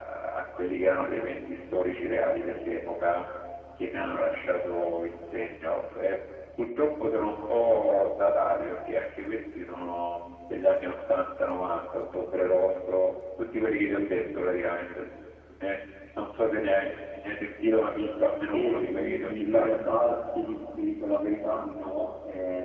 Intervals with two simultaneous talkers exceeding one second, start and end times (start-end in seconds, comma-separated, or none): 18.5-19.8